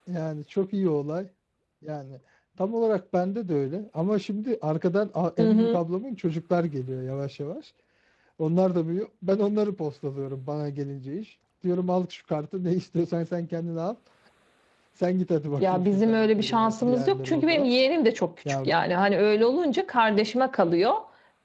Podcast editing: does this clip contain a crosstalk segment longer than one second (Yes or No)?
Yes